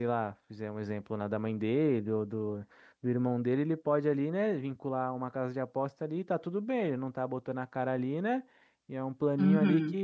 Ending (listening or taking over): listening